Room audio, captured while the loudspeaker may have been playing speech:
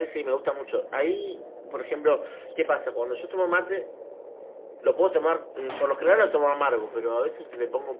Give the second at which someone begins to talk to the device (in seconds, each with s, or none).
none